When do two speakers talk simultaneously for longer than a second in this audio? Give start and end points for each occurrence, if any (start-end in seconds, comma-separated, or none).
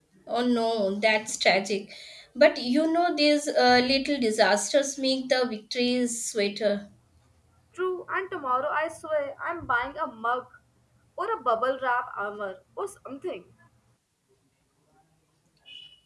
none